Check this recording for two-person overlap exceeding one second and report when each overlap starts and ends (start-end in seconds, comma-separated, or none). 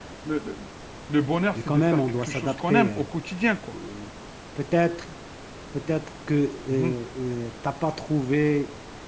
1.6-3.1